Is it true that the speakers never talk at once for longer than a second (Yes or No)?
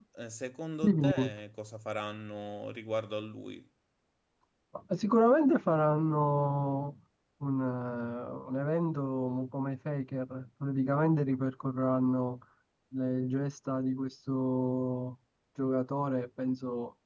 Yes